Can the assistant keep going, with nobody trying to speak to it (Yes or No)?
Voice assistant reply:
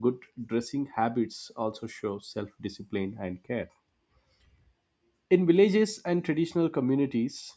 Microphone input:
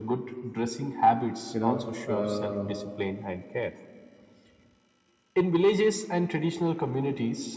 No